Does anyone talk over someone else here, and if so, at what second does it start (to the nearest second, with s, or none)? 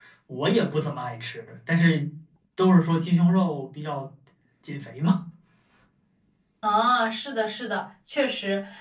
none